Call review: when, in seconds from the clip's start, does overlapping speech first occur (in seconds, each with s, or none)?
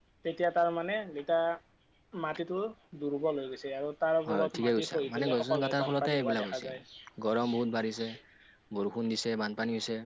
4.3 s